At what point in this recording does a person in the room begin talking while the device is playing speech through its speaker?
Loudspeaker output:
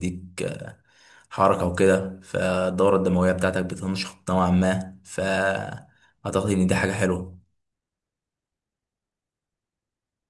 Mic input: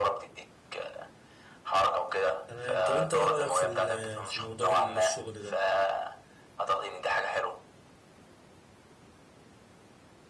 2.5 s

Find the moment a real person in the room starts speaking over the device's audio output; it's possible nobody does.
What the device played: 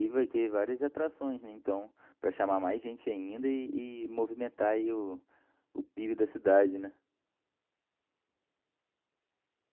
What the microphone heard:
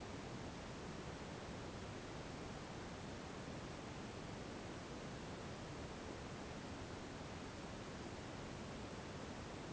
none

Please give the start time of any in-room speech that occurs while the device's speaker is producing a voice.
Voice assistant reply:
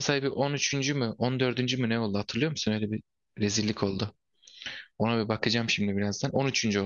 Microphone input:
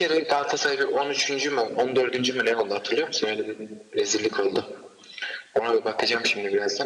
none

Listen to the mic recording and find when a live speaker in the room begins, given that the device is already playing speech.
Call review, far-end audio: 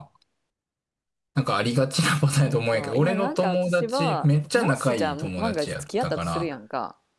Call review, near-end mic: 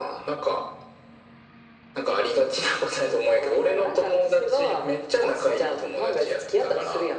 none

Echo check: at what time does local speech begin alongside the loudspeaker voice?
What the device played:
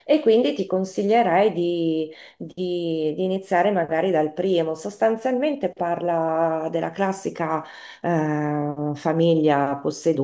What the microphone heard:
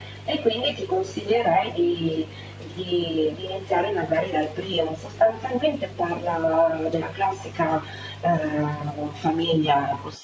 none

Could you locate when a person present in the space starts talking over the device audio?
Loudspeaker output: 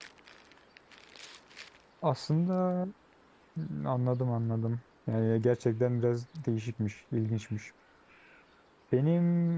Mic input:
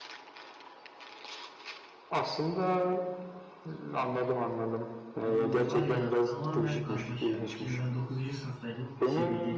5.2 s

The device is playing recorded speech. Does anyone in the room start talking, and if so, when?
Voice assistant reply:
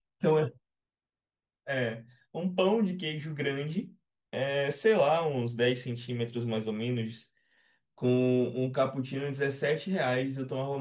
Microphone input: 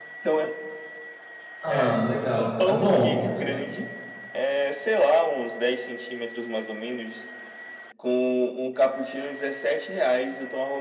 1.6 s

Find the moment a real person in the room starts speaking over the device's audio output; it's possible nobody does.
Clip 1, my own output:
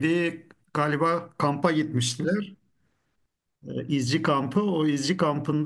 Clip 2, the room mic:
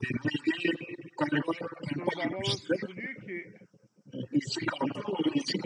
1.9 s

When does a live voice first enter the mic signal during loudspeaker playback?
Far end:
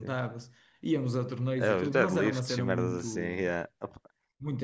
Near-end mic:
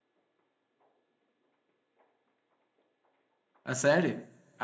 3.6 s

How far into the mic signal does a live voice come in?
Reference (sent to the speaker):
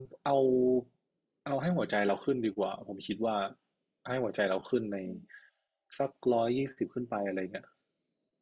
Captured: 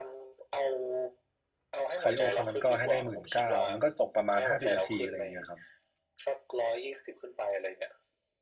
2.0 s

